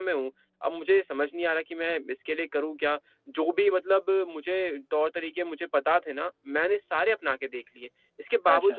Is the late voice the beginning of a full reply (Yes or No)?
No